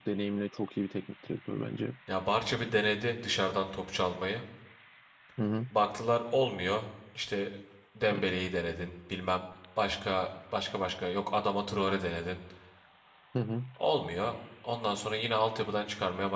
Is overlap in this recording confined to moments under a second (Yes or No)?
Yes